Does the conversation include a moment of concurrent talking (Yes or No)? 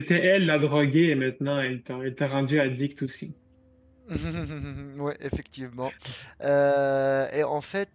No